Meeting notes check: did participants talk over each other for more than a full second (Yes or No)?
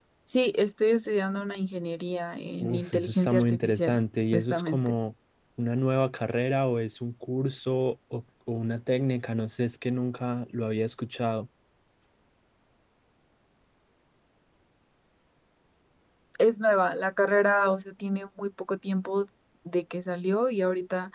Yes